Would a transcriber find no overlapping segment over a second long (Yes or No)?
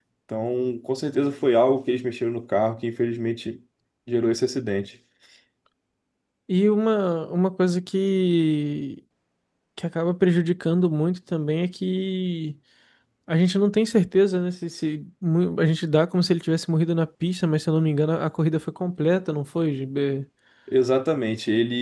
Yes